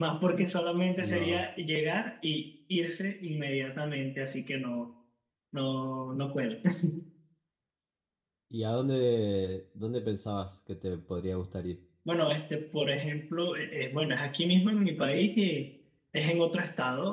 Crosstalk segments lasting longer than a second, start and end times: none

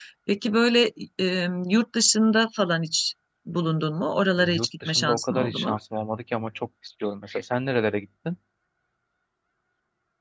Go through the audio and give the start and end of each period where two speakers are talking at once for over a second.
4.4-5.8

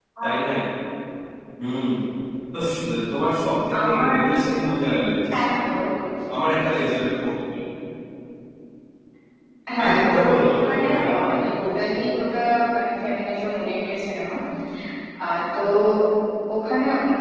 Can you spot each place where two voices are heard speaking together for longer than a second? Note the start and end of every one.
9.8-11.4

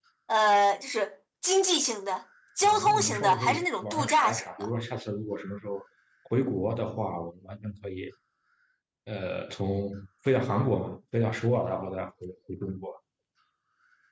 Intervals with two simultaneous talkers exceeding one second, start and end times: 2.6-4.7

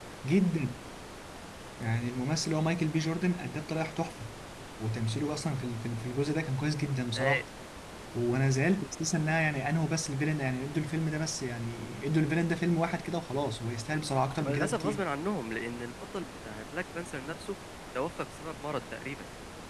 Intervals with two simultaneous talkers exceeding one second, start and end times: none

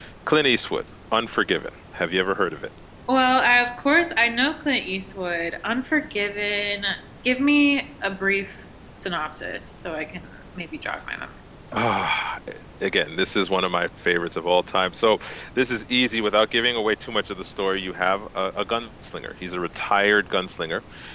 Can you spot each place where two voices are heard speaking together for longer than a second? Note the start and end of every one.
none

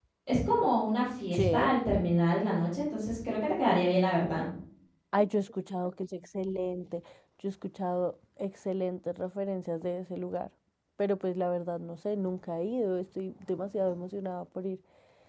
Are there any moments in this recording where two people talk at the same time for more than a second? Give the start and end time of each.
none

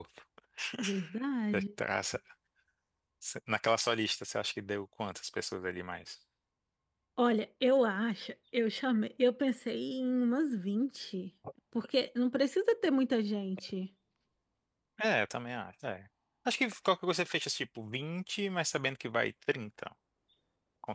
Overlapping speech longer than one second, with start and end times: none

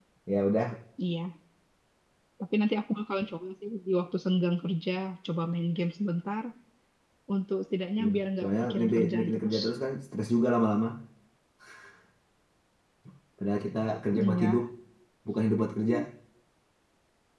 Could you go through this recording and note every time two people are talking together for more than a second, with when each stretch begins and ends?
8.0-9.6

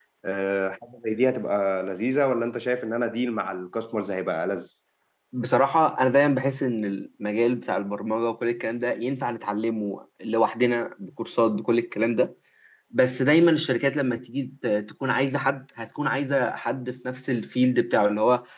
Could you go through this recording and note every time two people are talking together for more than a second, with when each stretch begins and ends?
none

